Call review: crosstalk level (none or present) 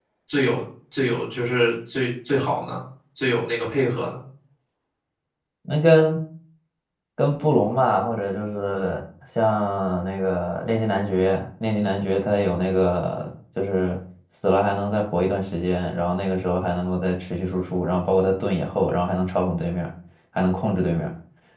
none